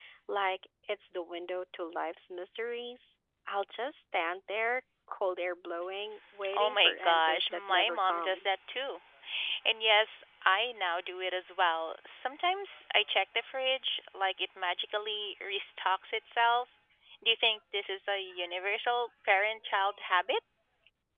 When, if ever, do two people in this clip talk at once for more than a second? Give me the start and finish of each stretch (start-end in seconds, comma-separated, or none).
6.5-8.5